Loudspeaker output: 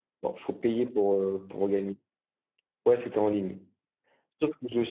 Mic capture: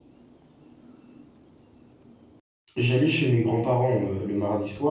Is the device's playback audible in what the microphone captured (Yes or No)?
No